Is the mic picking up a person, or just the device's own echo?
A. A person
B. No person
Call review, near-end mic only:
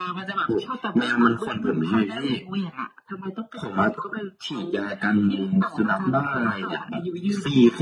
B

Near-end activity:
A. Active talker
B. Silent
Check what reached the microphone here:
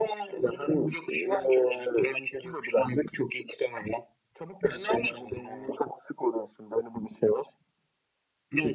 B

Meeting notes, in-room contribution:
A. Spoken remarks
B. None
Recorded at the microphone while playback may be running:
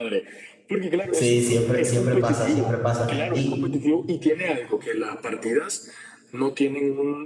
A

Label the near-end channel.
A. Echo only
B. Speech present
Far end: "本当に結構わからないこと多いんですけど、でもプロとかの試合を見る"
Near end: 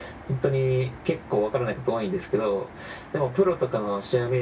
A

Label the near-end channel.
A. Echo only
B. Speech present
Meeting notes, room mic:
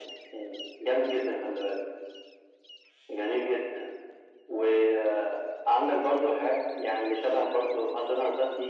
A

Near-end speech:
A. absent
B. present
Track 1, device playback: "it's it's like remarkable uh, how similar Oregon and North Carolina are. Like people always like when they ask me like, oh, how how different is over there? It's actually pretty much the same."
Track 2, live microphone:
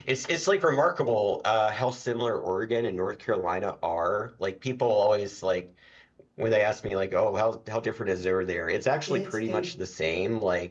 B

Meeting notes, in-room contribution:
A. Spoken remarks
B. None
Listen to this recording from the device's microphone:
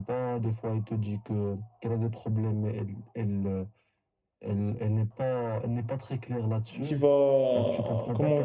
A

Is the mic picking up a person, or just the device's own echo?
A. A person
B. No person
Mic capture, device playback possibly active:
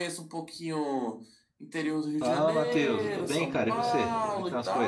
A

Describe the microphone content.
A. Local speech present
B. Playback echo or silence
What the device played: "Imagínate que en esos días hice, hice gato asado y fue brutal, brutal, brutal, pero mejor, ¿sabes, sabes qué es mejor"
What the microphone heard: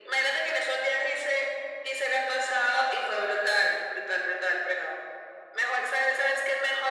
B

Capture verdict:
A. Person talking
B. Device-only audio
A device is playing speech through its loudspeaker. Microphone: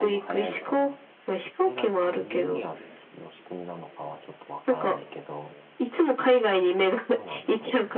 A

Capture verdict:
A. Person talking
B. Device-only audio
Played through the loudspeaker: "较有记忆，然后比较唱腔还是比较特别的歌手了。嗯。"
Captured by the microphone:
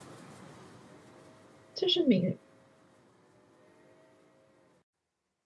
A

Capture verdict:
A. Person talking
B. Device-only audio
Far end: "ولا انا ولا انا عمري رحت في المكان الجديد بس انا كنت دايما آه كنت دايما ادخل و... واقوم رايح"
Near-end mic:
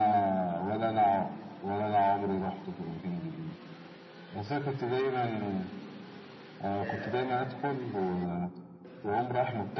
A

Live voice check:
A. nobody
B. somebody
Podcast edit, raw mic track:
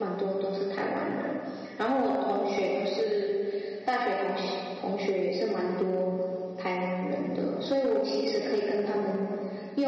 B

